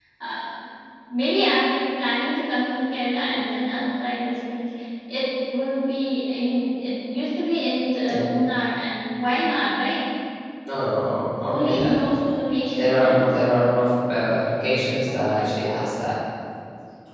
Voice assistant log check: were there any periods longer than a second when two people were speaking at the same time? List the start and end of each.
none

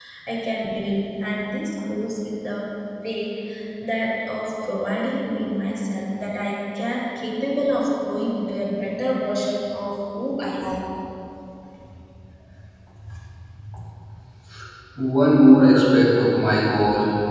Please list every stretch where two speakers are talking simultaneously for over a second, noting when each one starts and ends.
none

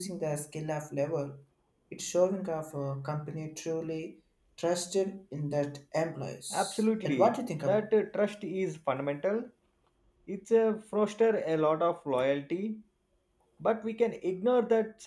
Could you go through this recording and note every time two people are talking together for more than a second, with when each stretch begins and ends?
6.5-7.9

